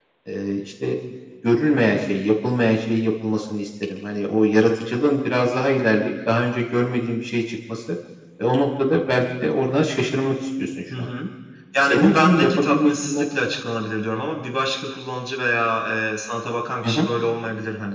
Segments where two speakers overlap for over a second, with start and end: 11.8-13.2

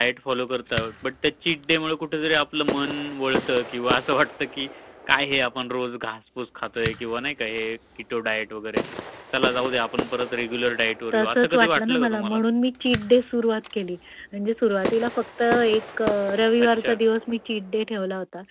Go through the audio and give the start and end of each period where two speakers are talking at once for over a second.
11.1-12.4

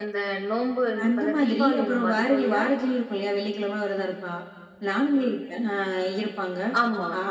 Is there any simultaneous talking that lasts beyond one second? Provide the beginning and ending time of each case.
1.1-2.6

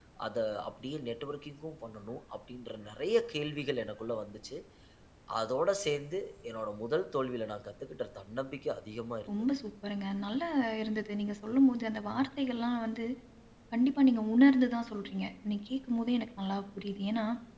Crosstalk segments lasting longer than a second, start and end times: none

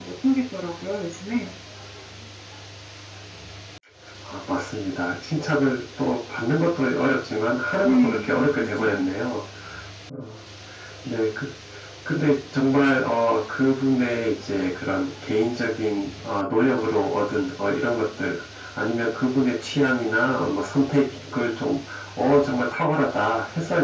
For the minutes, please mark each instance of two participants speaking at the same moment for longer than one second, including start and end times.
7.8-9.1

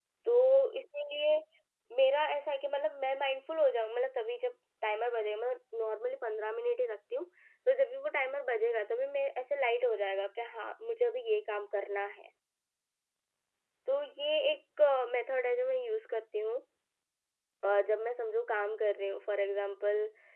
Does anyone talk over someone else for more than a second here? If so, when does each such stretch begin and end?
none

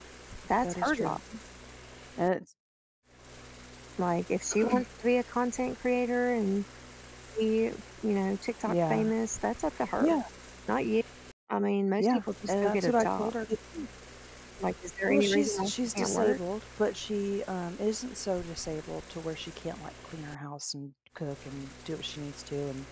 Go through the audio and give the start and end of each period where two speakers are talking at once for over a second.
12.0-13.3, 15.1-16.4

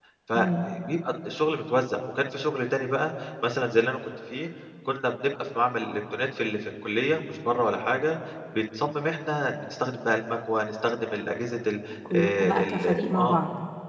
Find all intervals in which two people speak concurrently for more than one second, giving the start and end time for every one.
12.2-13.4

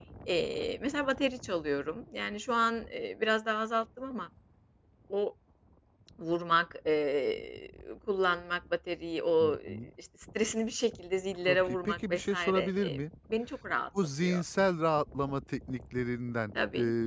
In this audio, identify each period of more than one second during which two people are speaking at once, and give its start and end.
11.4-13.0

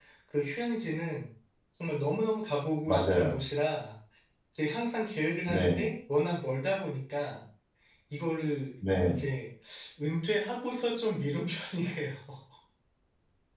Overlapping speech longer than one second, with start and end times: none

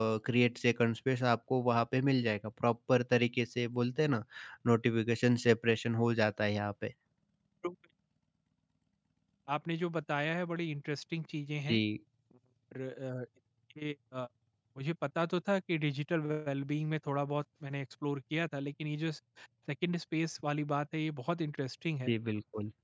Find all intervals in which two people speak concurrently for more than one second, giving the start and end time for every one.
none

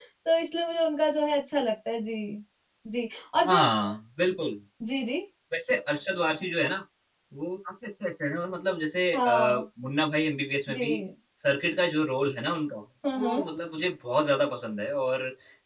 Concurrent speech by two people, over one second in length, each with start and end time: none

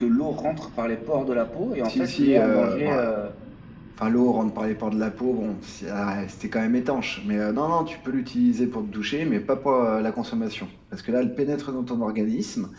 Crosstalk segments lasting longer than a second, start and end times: 1.9-3.1

